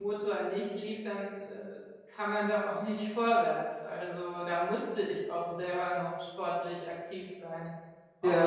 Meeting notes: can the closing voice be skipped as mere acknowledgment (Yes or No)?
No